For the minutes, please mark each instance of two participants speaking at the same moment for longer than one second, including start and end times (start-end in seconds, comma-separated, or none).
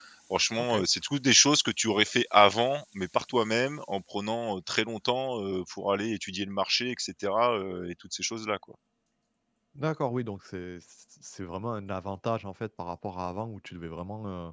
none